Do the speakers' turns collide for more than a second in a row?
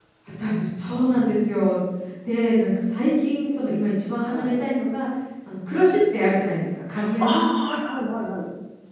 No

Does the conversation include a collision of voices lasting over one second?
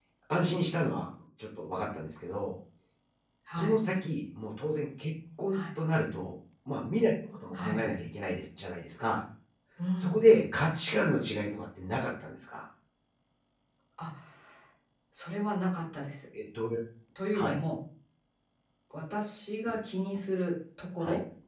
No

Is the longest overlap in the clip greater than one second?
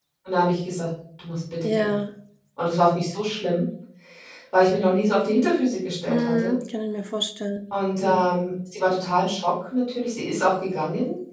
No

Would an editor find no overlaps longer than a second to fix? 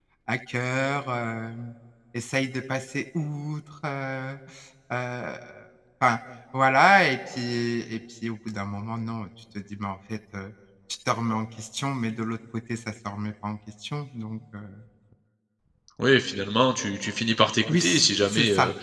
Yes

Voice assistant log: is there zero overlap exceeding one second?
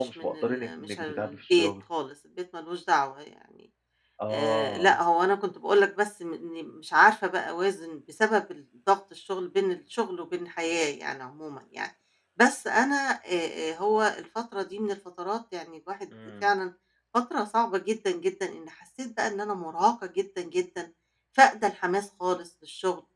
No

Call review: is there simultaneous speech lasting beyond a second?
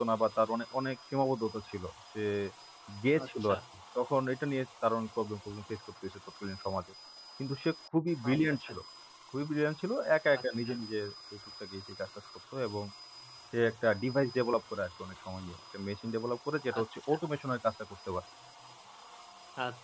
No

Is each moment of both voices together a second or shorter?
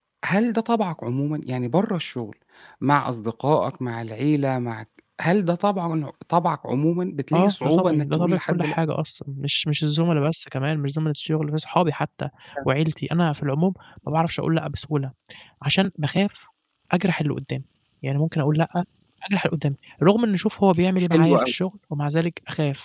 No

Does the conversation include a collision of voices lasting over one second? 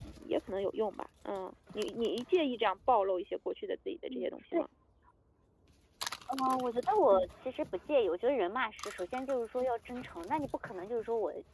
No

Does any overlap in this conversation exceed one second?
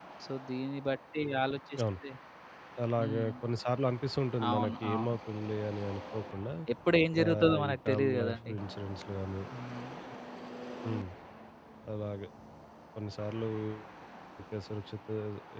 Yes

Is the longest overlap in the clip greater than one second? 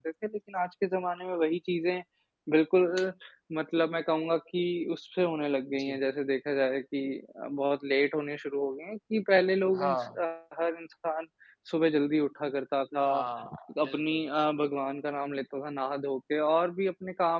No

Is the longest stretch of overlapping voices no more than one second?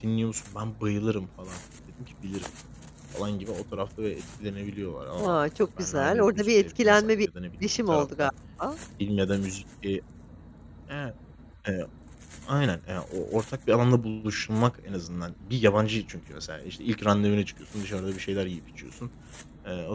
No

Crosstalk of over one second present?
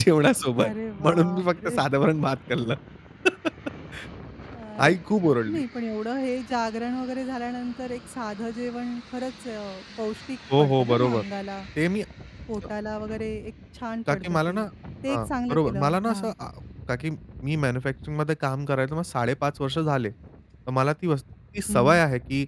Yes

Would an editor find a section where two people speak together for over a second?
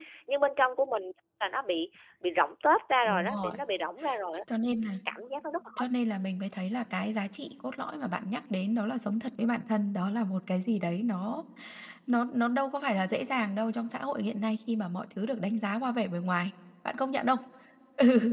No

